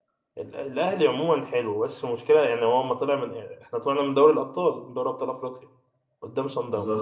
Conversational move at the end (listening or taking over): listening